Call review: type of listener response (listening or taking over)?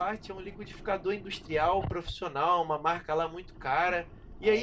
listening